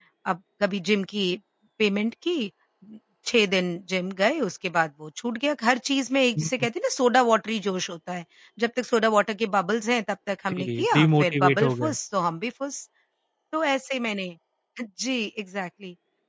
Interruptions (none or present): present